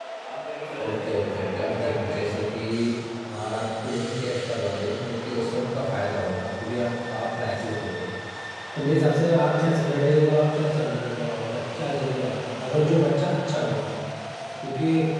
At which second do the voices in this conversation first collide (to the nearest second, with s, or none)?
1 s